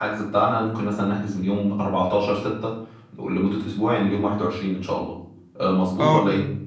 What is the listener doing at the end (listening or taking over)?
taking over